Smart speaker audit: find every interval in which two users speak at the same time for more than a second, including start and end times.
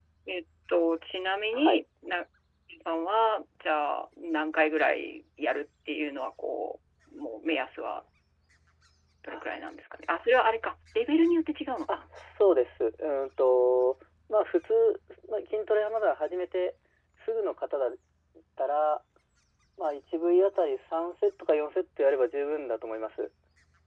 none

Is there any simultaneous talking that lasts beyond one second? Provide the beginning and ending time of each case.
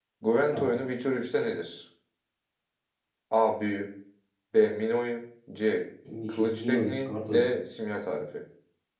6.3-7.5

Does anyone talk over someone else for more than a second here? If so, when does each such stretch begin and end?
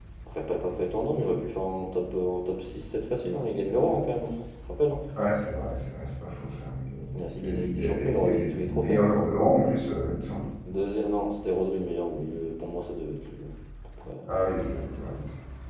7.1-9.1

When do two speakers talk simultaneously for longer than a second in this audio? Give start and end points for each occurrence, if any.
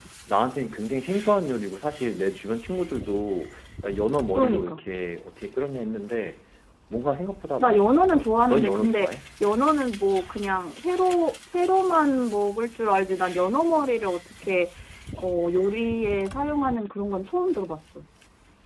7.6-9.1

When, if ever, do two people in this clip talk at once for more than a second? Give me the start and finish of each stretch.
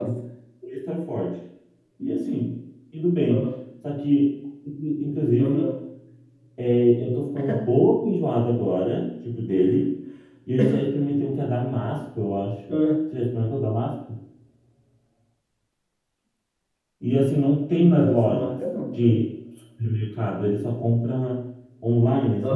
17.8-19.2

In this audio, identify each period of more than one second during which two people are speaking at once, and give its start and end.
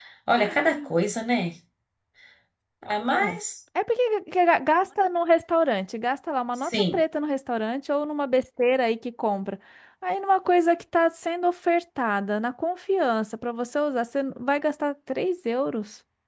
none

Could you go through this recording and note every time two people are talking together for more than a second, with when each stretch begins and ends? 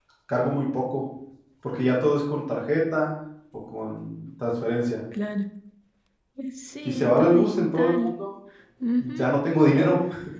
6.8-8.1

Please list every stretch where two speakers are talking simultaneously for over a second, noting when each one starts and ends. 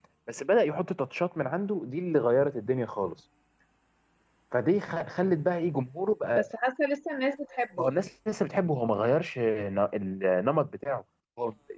none

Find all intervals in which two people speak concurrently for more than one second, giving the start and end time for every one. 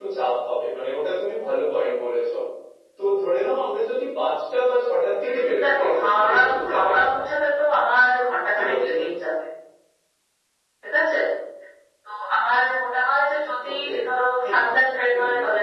5.2-6.9

